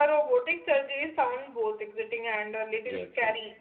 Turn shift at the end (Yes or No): No